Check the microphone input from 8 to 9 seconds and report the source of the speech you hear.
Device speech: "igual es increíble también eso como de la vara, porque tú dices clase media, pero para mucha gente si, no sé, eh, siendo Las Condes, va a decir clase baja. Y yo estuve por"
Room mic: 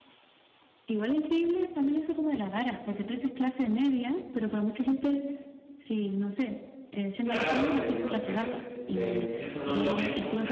both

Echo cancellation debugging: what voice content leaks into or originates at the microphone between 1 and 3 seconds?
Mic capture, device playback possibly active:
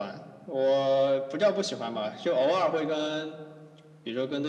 echo only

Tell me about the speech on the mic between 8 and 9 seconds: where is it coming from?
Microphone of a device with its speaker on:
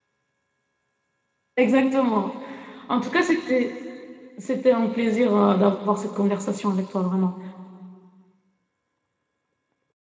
neither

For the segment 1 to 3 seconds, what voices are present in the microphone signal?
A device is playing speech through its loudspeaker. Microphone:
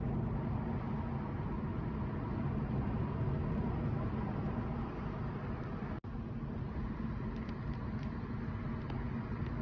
neither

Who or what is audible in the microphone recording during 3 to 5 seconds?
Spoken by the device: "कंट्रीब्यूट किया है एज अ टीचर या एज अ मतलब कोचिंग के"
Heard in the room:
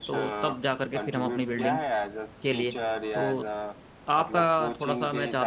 both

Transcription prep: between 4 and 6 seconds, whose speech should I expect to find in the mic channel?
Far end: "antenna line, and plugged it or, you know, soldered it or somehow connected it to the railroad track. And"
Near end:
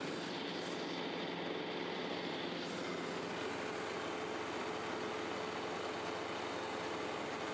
neither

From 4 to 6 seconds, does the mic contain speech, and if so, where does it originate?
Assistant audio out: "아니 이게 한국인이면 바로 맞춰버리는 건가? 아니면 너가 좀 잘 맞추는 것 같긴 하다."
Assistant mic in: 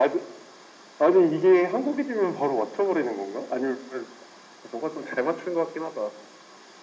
echo only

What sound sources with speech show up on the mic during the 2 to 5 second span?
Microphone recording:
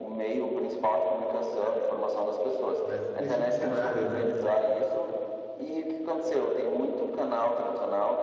both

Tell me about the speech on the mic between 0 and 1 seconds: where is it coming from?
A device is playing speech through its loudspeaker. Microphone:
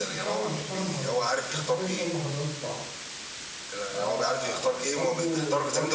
both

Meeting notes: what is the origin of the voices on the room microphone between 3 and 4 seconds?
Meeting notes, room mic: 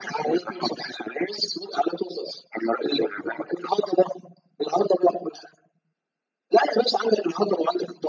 echo only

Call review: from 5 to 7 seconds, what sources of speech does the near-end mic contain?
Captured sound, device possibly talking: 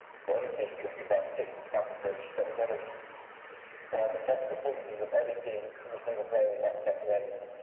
echo only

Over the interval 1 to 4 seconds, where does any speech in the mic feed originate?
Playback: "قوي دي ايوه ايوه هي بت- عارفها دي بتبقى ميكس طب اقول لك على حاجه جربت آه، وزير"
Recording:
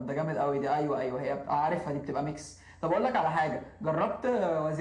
echo only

